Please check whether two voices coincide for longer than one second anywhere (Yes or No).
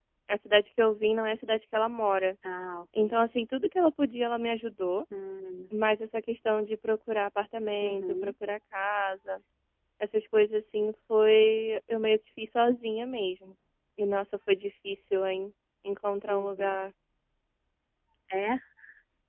No